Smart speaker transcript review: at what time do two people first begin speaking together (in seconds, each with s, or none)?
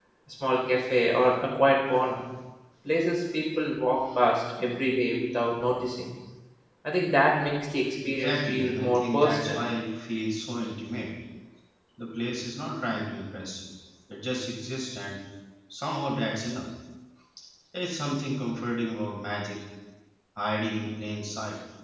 8.0 s